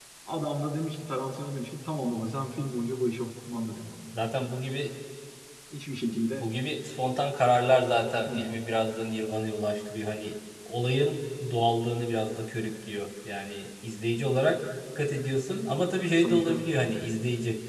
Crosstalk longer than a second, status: none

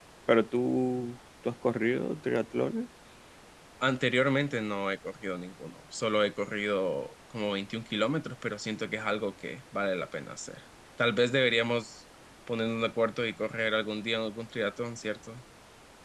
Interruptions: none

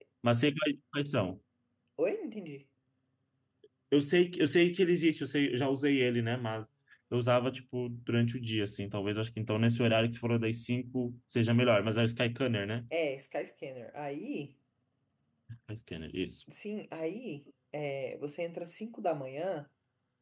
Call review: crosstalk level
none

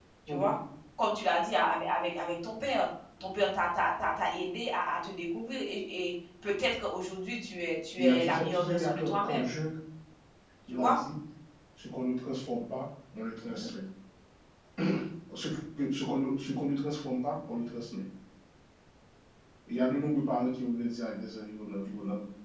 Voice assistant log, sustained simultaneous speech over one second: present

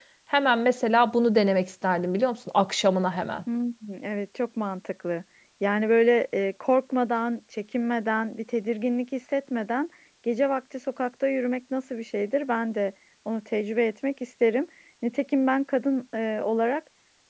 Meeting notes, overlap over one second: none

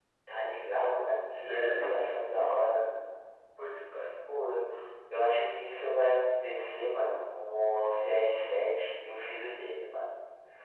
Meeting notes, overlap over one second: present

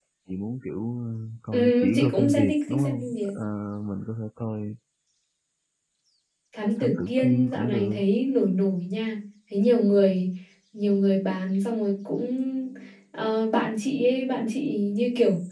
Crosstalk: present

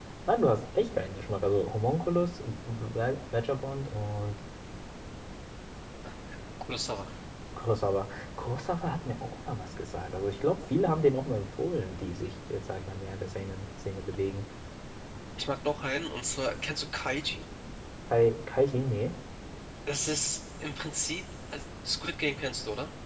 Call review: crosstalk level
none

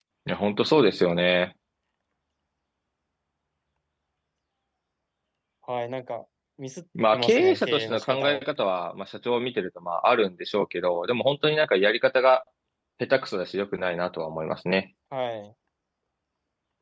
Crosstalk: present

